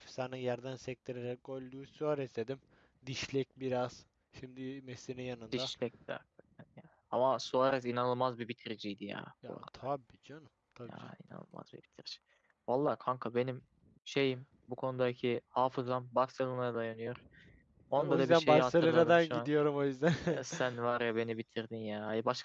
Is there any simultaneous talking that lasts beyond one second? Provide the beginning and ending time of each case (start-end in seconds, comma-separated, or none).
18.0-19.5